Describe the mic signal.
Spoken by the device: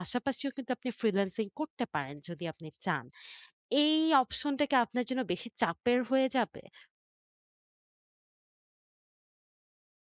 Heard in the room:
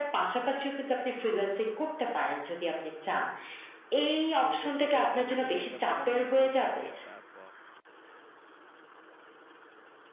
both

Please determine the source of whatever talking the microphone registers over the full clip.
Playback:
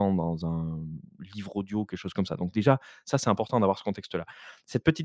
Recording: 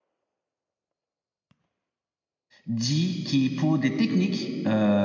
user only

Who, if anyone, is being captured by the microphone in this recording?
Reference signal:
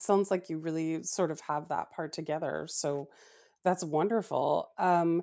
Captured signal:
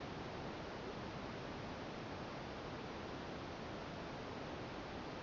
neither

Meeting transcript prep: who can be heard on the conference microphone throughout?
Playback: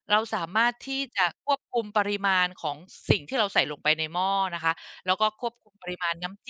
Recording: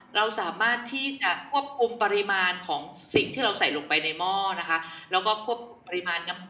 echo only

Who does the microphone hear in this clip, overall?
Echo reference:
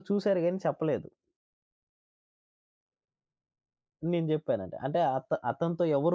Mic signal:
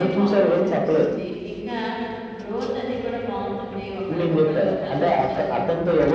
both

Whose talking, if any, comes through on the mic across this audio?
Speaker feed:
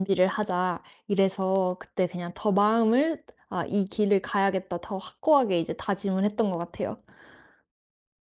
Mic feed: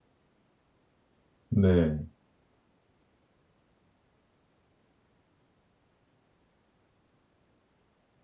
user only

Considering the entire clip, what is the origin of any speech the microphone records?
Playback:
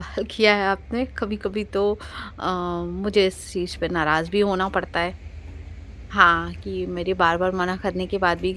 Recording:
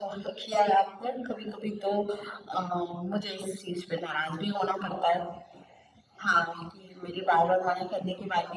echo only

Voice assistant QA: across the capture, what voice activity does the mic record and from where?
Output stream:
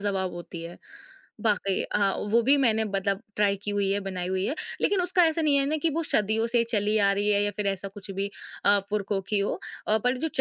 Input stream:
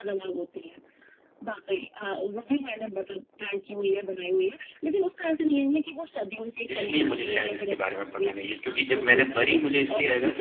both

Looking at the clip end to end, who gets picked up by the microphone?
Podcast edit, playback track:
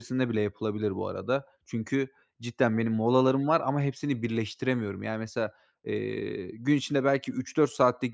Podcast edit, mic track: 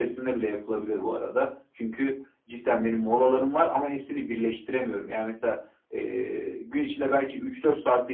echo only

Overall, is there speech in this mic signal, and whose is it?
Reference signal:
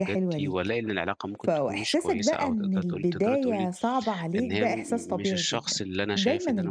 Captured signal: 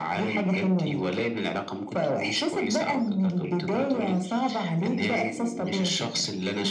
echo only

